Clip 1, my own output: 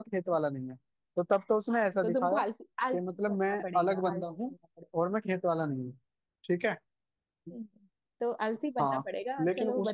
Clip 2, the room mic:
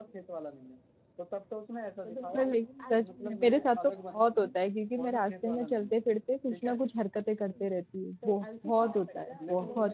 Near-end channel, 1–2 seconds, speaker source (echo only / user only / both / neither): echo only